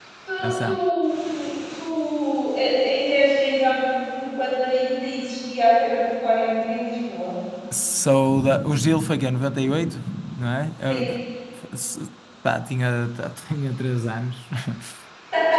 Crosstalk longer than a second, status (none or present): none